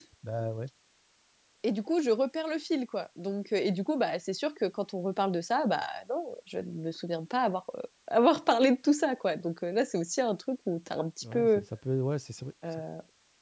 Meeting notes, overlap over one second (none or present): none